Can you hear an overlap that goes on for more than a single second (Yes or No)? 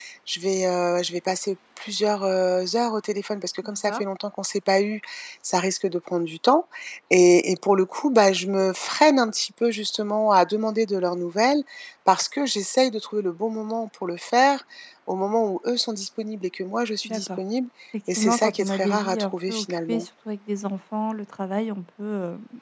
Yes